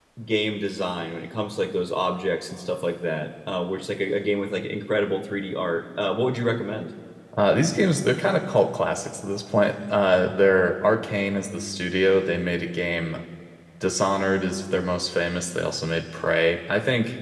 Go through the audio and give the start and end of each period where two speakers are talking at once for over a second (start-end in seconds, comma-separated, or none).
none